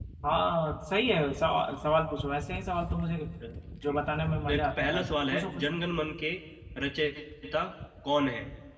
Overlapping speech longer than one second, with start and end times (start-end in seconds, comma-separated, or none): 4.5-5.8